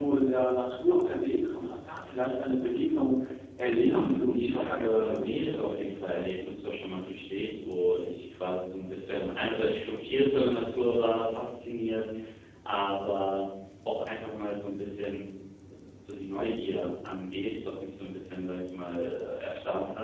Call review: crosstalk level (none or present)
present